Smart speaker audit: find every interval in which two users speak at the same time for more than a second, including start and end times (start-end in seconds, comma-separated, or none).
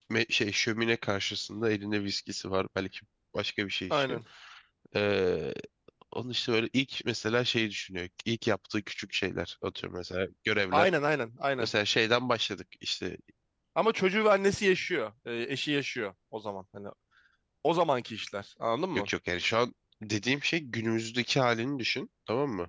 none